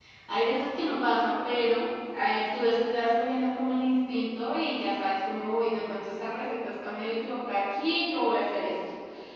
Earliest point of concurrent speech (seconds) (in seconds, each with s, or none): none